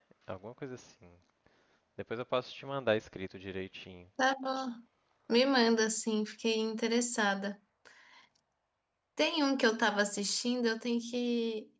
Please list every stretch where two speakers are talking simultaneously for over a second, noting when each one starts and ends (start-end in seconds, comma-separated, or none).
none